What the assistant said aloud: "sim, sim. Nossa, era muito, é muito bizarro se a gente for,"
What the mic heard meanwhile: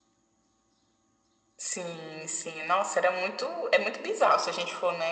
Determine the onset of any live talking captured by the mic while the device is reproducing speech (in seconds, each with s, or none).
none